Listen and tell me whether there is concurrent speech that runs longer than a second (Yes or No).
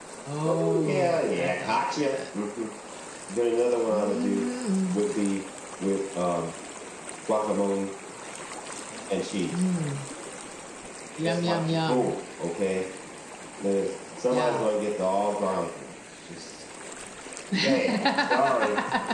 Yes